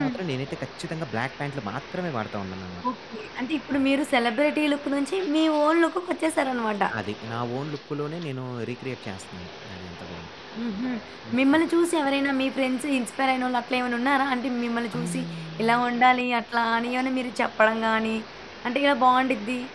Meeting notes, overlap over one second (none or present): none